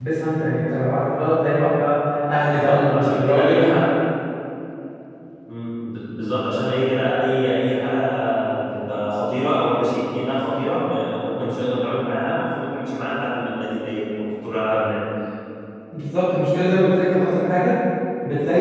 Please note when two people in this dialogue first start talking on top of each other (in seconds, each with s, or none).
2.5 s